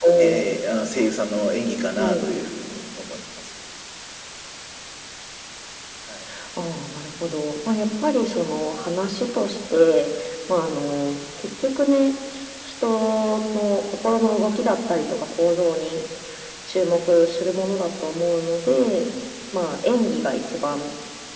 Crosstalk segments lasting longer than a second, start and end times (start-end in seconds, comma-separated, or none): none